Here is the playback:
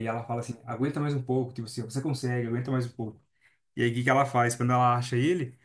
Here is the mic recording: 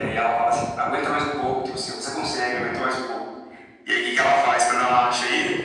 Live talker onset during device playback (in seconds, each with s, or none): none